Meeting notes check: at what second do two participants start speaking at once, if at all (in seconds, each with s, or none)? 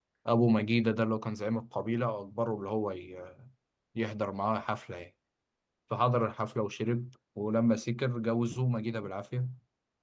none